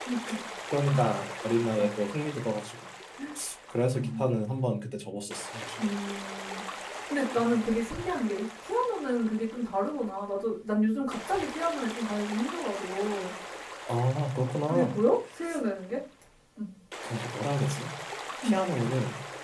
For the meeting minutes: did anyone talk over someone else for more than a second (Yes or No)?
No